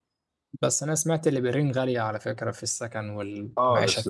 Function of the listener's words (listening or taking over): taking over